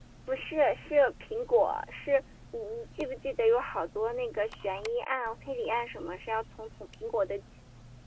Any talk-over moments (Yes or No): No